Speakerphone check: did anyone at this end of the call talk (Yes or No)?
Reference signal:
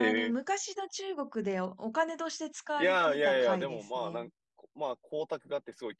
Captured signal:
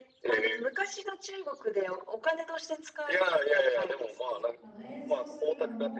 Yes